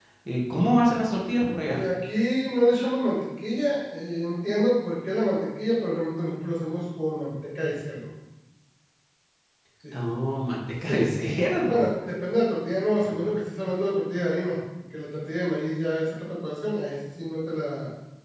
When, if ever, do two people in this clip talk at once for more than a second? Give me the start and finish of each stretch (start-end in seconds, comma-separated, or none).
none